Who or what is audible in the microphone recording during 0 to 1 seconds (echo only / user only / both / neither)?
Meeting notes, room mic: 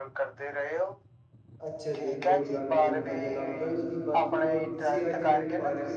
echo only